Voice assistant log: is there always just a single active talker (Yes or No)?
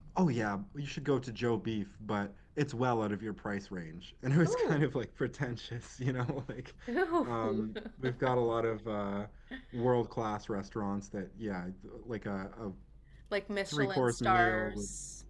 No